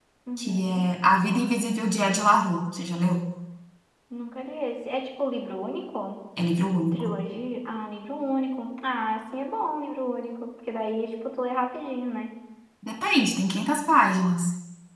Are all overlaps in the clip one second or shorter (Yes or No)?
Yes